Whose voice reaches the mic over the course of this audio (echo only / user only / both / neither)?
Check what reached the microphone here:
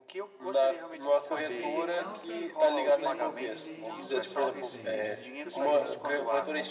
both